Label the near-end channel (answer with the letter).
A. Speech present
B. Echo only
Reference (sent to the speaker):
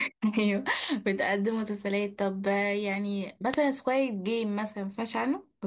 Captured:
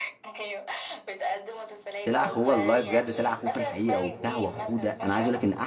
A